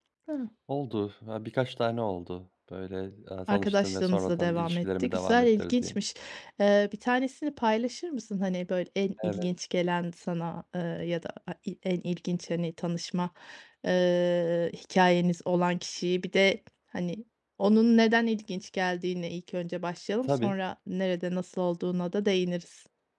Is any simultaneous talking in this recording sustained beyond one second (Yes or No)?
Yes